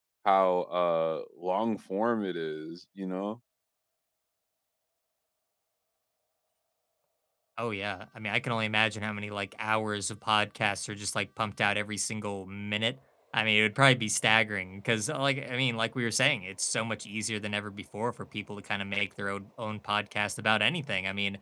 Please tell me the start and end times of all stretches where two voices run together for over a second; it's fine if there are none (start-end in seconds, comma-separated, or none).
none